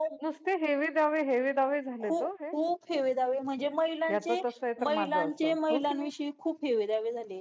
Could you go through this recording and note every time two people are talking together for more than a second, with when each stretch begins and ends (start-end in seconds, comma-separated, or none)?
4.8-6.1